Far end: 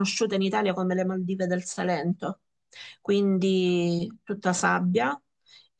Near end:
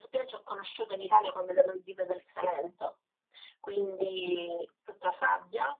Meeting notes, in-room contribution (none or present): none